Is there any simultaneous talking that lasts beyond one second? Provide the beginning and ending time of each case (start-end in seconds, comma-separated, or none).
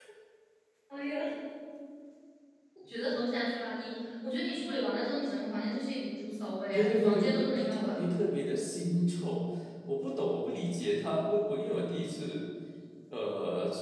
6.7-8.0